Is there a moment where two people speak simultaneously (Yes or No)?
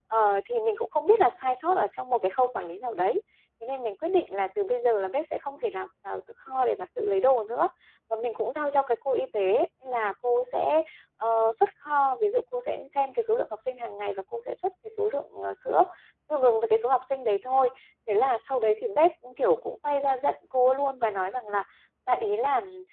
No